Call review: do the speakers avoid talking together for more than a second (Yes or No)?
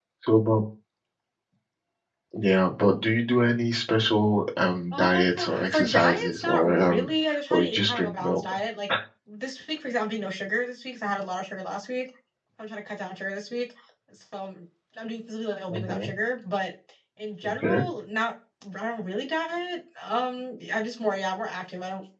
No